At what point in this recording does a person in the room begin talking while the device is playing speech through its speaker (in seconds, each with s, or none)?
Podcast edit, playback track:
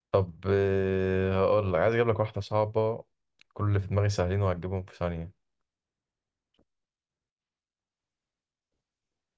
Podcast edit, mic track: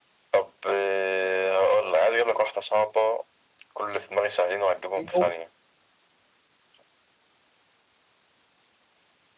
5.0 s